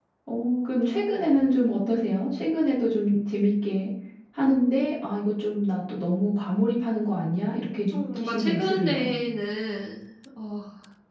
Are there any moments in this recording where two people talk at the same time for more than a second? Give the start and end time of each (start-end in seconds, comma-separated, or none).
7.9-9.1